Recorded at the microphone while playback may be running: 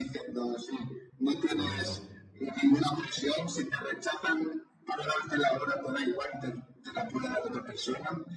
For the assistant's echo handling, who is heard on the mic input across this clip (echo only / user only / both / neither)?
both